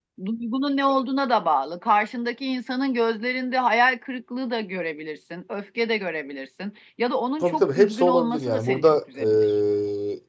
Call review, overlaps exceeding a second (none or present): present